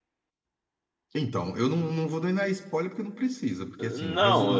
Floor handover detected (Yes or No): Yes